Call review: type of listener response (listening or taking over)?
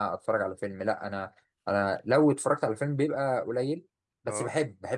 listening